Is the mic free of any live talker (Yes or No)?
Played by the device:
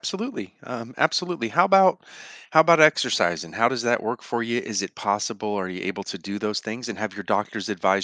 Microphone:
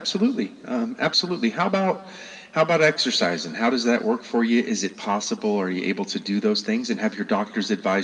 Yes